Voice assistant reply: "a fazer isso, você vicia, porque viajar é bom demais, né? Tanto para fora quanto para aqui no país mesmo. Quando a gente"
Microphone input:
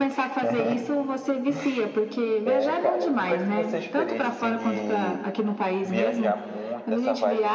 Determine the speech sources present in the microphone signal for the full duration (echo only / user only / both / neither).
both